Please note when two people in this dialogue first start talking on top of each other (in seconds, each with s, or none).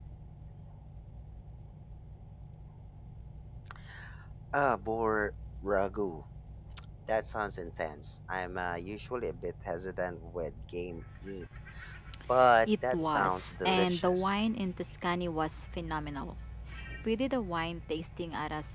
12.7 s